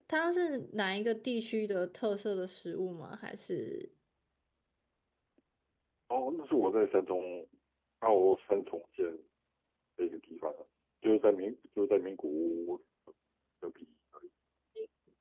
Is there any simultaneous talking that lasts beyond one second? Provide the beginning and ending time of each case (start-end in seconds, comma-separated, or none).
none